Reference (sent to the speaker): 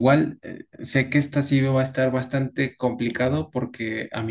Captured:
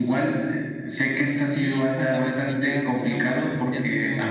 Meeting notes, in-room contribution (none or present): present